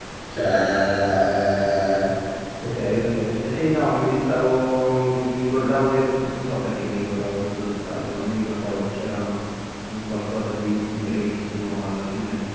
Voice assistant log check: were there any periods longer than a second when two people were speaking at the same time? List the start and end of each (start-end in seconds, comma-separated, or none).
none